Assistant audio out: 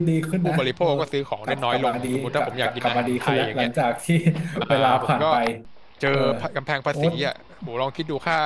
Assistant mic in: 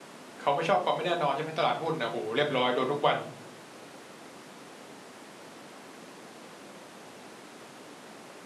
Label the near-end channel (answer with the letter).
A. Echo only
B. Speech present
B